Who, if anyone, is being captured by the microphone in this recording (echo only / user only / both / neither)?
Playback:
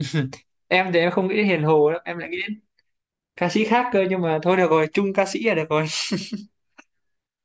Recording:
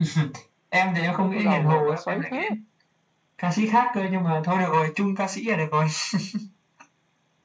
both